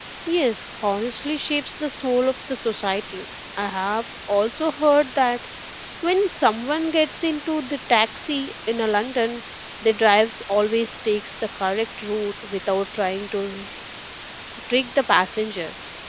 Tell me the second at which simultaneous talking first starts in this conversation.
none

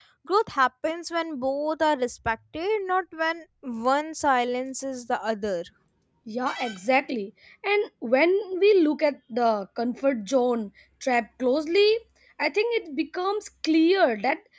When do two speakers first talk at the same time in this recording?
none

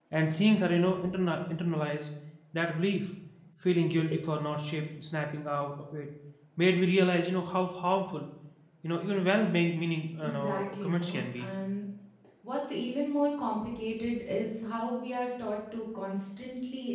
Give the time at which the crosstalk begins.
10 s

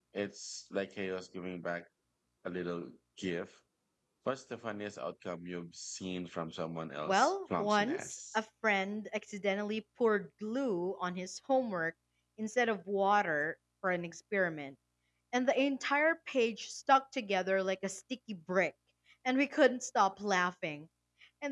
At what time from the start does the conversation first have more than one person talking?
7 s

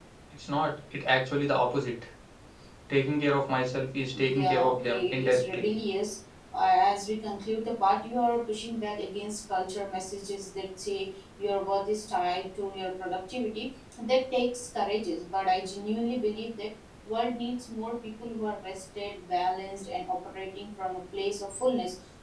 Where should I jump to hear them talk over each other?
4 s

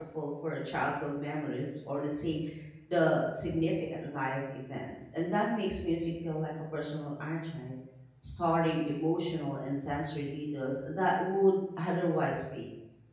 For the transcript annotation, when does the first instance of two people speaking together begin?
none

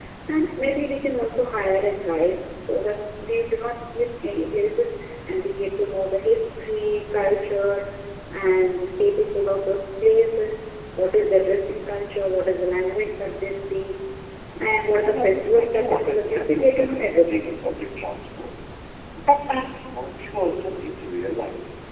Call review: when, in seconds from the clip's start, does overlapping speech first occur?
15 s

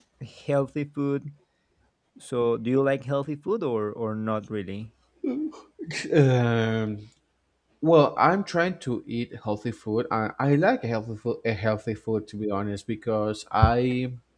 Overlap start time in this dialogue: none

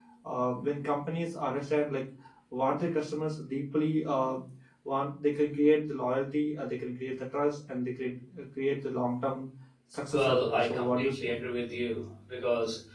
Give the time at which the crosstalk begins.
10 s

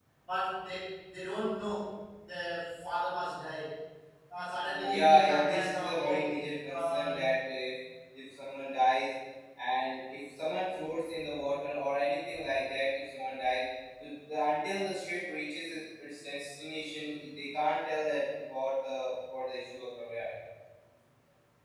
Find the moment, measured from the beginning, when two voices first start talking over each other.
5 s

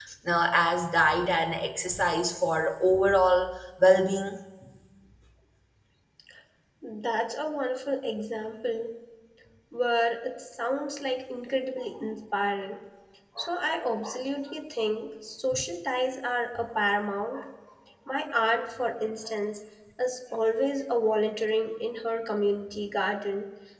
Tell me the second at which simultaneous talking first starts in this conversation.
none

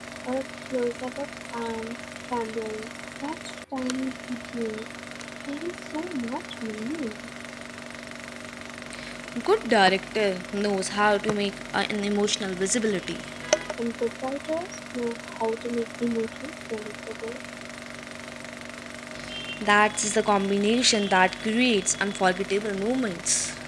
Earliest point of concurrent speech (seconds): none

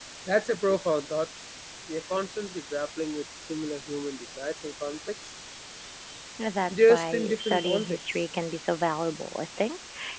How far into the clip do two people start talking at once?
7 s

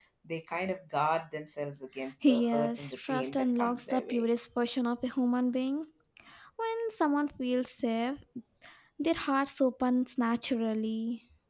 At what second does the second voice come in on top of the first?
2 s

